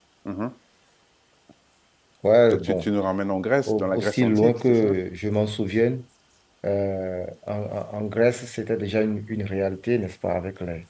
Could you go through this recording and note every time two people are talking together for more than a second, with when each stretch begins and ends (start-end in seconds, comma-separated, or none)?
3.7-4.9